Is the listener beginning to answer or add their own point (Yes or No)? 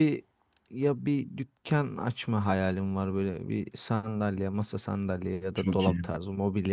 No